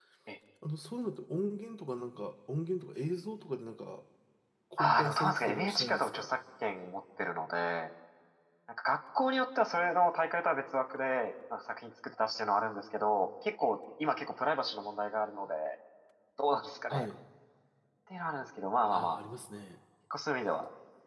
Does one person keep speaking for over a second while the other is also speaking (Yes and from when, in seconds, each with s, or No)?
Yes, from 4.8 s